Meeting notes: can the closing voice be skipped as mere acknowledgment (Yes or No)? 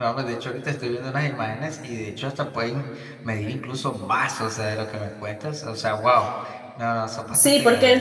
No